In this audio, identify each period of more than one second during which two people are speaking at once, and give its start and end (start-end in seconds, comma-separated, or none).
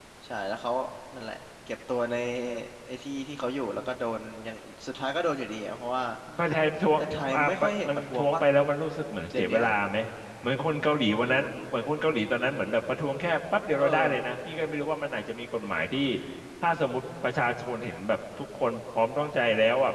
7.0-8.4